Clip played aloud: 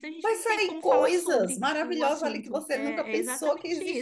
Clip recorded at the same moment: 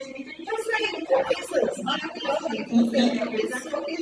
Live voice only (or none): e,